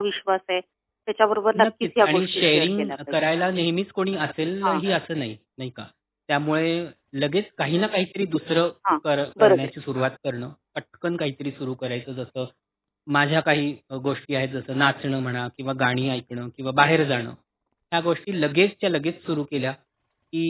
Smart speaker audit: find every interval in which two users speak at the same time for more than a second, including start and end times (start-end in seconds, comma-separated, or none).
1.6-3.0